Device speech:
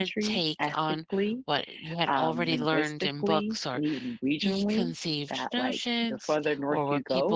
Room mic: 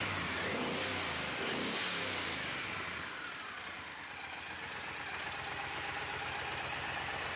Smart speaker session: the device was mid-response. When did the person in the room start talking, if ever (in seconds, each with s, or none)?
none